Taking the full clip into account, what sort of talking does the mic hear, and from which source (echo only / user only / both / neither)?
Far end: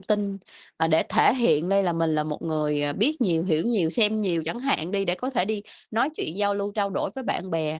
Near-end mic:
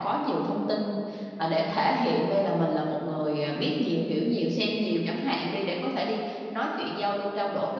echo only